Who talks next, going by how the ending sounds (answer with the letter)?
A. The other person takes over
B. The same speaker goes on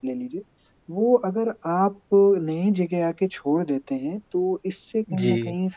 B